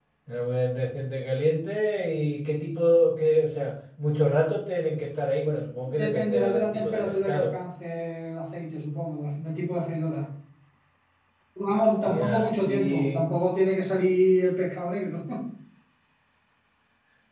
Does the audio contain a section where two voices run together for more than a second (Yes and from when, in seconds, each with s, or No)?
Yes, from 6.0 s